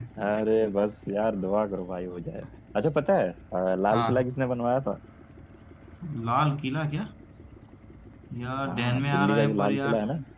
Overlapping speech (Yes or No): Yes